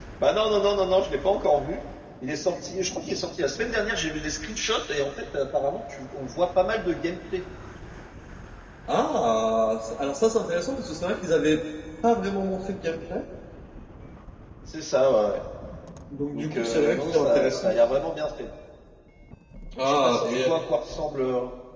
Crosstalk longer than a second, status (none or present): present